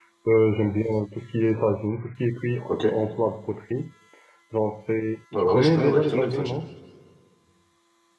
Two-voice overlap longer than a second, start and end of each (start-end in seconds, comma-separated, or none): 5.3-6.6